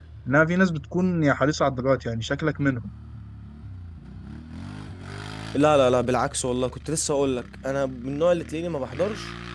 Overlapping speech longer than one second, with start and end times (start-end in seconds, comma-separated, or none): none